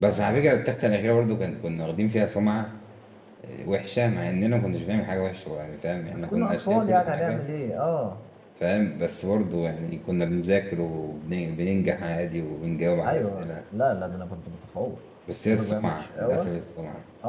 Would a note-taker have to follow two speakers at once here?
Yes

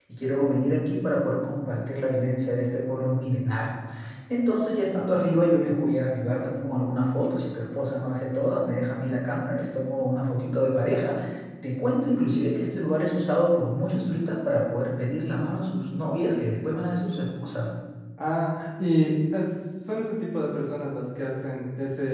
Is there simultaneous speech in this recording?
No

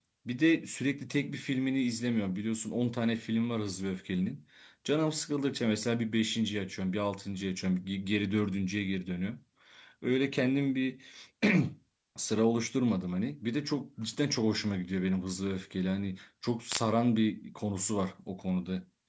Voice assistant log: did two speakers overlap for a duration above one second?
No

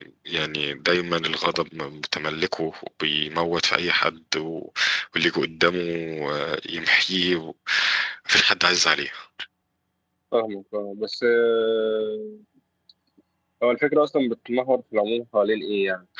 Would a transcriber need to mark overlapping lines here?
No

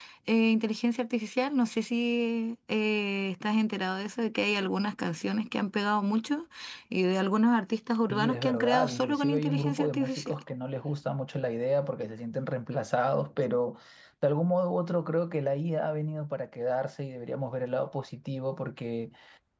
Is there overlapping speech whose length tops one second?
Yes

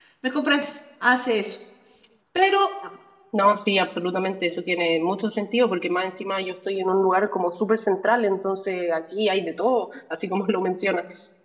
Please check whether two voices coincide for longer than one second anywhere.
No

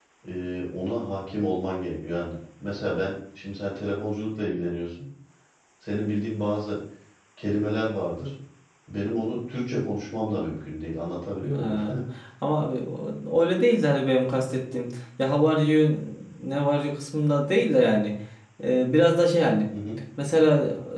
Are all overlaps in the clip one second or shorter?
Yes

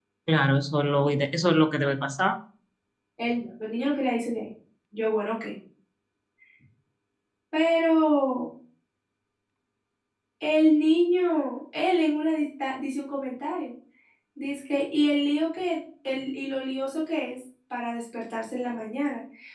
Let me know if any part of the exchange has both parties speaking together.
No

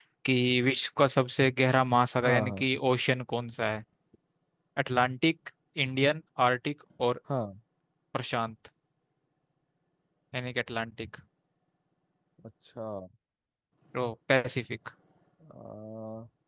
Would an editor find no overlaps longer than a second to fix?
Yes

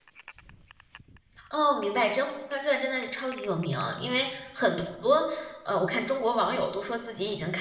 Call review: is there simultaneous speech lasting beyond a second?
No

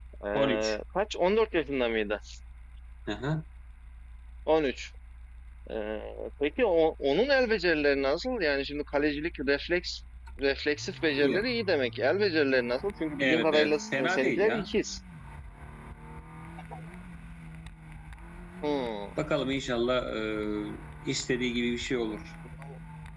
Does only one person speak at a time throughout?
No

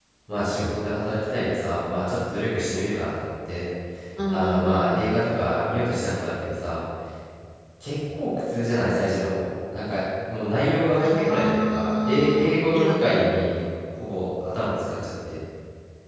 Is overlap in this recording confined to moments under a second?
No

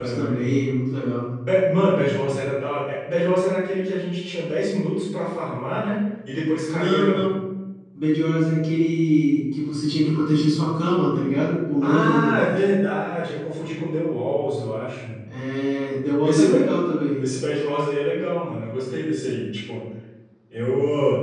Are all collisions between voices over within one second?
Yes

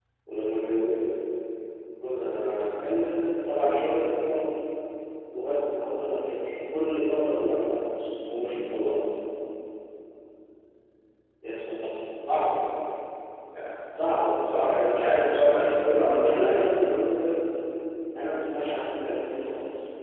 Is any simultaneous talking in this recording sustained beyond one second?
Yes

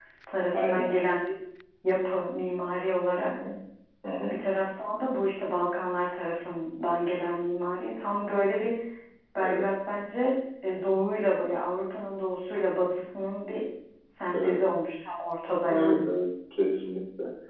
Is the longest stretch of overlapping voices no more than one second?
Yes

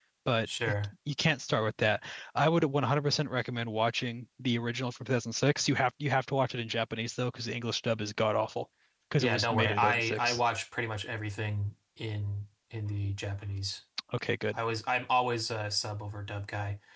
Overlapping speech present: Yes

